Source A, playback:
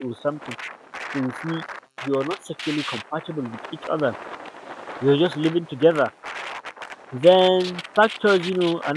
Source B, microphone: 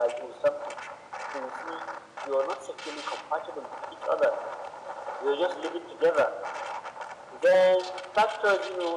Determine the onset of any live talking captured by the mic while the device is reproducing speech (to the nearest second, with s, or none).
none